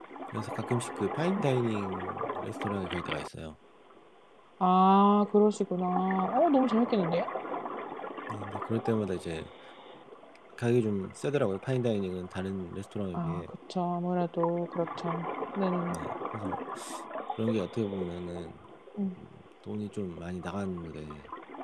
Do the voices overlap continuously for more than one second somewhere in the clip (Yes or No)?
No